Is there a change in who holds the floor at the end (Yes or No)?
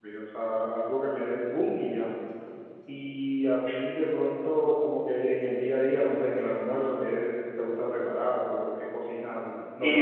Yes